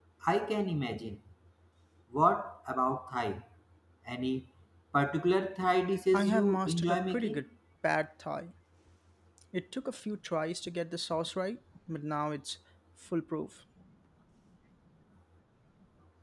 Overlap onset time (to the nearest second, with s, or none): 6 s